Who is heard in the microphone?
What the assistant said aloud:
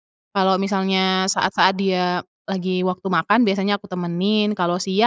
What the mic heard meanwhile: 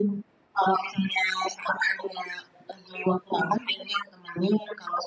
echo only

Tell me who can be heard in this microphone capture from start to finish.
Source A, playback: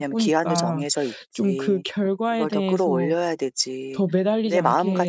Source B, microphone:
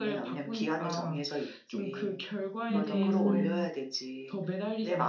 both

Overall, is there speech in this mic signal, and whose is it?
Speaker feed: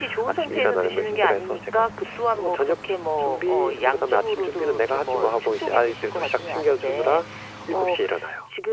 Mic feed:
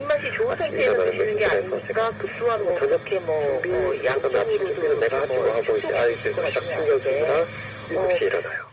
echo only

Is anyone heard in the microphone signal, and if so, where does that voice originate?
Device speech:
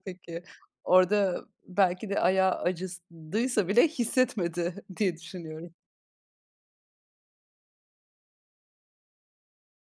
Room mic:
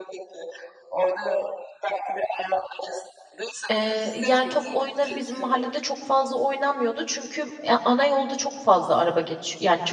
both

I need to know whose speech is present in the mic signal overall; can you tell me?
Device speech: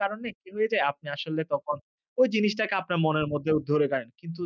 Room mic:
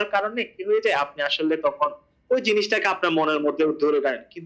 echo only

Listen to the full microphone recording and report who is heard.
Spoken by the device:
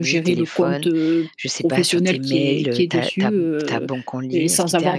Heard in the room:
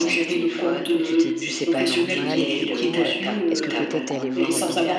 both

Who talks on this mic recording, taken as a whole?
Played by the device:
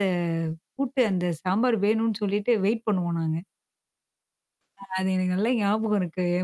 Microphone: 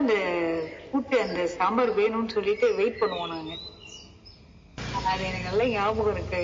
echo only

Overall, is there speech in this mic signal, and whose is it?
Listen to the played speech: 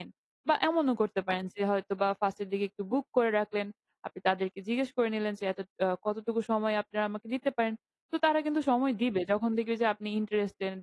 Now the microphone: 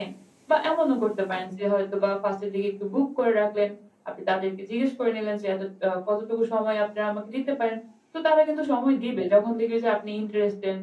echo only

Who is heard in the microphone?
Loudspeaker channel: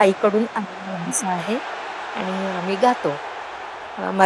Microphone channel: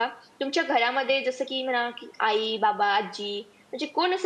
user only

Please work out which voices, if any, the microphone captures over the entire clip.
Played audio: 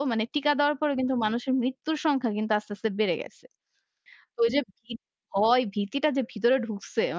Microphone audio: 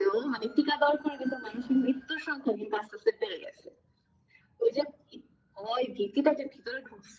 echo only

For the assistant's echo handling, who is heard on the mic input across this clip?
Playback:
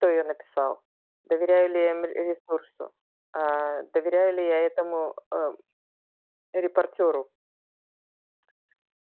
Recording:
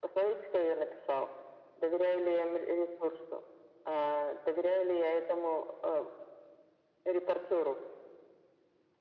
echo only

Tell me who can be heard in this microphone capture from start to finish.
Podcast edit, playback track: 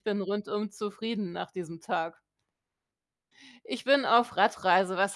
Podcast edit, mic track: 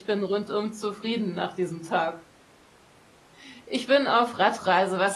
echo only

